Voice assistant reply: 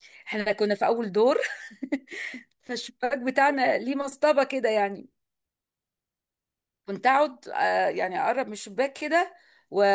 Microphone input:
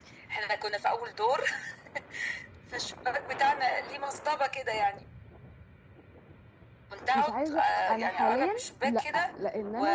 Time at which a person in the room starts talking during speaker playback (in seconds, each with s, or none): 7.1 s